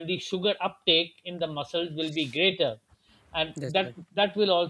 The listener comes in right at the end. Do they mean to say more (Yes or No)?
No